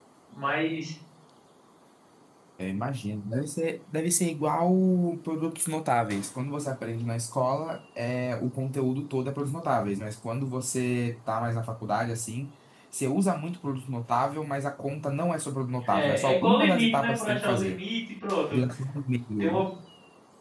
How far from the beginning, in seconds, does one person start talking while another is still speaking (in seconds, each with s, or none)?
15.9 s